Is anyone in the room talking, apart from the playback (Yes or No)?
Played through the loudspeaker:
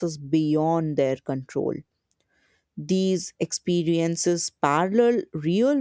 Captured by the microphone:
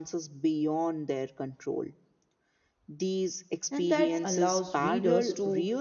Yes